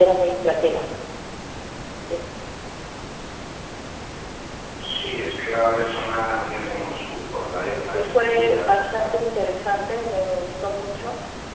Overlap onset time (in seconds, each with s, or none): 7.8 s